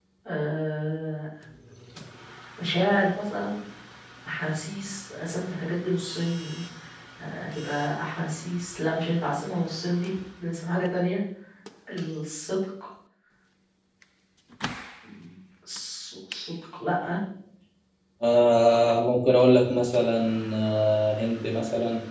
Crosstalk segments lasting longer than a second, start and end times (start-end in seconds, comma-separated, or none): none